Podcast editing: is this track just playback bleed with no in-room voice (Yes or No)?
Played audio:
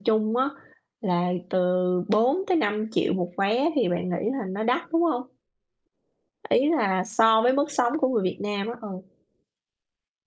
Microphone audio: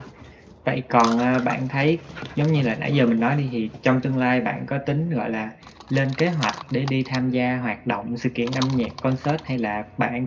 No